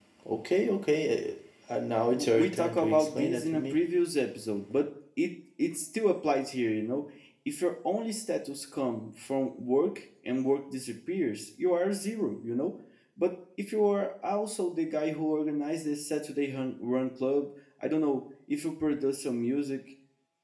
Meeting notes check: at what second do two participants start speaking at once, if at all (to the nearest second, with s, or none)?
2 s